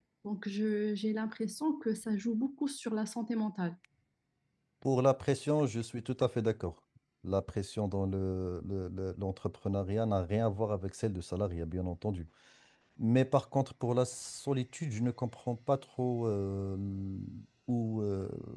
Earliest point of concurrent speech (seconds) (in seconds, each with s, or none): none